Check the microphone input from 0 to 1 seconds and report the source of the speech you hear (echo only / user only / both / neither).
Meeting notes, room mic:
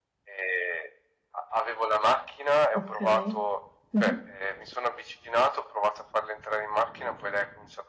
echo only